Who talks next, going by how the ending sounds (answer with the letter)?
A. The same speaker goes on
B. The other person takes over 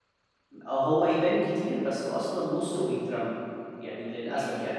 A